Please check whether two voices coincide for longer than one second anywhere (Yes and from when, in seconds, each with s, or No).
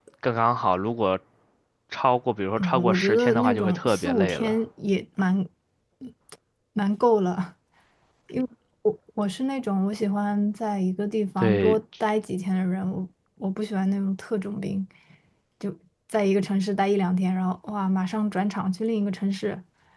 Yes, from 2.6 s